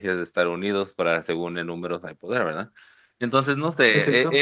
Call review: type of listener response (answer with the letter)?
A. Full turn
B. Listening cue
B